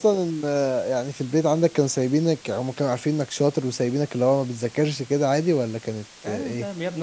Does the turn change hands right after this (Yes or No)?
Yes